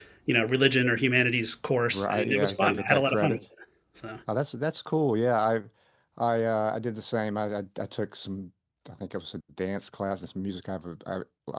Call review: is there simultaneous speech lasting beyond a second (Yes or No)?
Yes